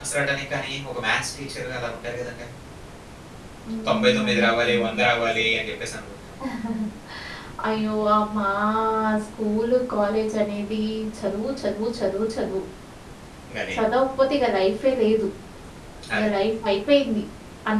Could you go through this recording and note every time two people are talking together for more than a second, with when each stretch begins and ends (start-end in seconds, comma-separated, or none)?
3.9-5.1